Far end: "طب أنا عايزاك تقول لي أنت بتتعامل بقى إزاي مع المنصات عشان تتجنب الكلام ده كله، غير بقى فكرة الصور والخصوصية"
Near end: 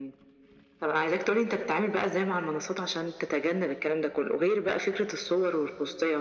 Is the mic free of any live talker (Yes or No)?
Yes